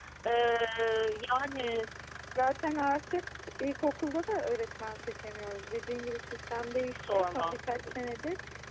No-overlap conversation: No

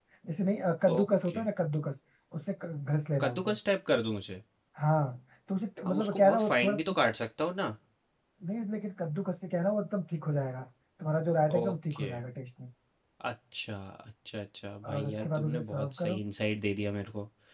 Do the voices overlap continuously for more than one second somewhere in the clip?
Yes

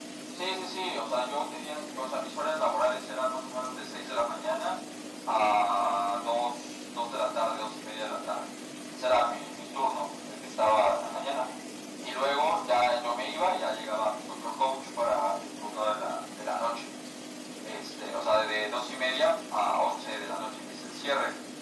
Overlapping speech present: No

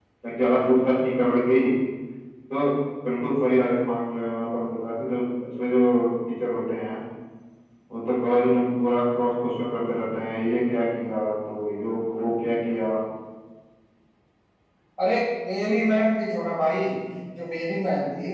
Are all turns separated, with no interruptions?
Yes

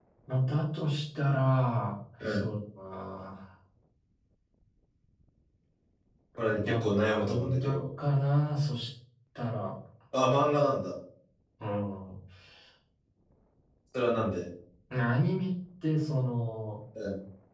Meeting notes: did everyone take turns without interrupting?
No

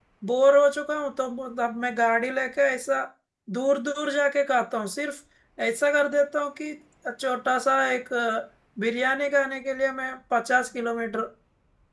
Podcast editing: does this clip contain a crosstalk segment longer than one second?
No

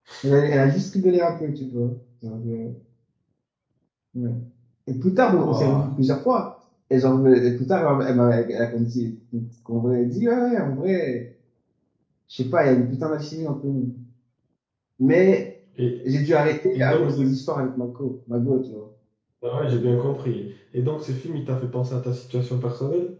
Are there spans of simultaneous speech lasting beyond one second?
No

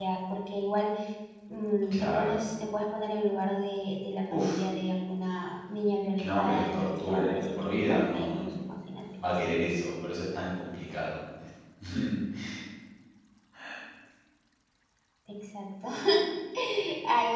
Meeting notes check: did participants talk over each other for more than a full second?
Yes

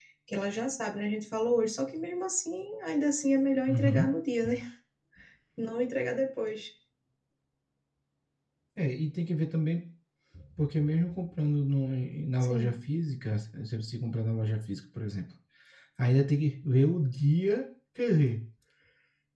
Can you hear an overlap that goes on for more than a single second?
No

